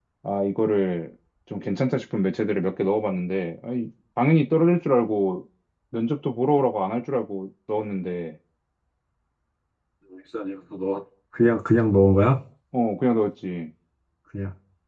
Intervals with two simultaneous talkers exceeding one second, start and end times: none

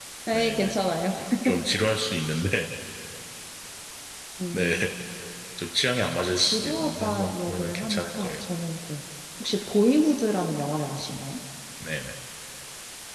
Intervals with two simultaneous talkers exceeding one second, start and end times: 6.3-8.3

